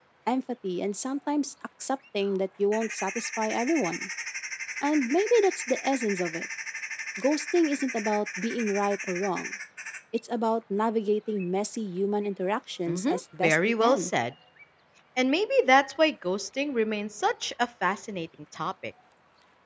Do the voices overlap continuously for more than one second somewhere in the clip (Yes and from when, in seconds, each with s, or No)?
Yes, from 12.9 s